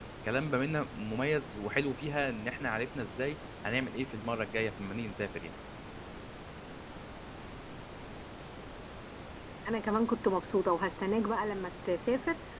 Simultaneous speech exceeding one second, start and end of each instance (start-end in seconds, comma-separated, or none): none